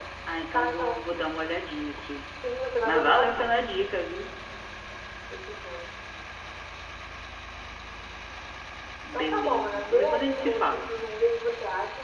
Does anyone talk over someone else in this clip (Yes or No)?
Yes